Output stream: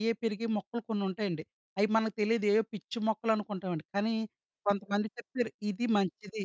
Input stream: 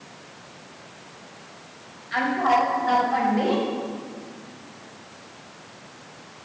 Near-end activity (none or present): present